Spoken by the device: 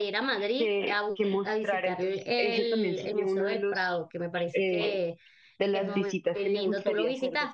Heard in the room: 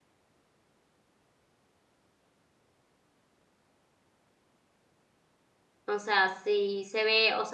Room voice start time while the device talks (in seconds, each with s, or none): 5.9 s